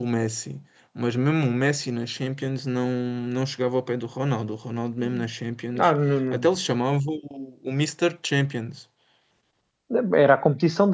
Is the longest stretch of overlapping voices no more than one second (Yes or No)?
Yes